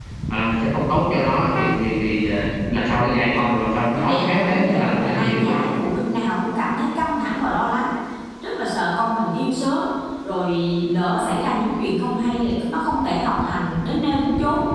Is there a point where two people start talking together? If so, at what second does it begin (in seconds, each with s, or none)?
4.0 s